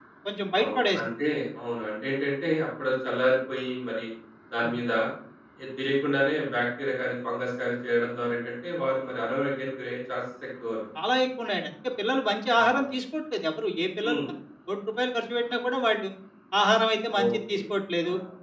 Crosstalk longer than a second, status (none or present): none